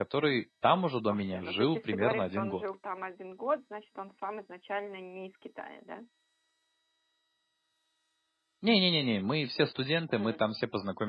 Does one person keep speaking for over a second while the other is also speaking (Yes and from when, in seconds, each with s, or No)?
Yes, from 1.1 s